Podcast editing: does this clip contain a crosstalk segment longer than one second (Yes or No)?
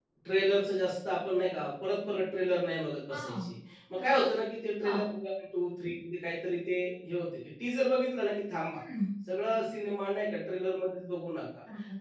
No